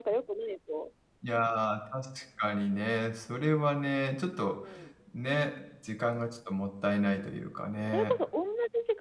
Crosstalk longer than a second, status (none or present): none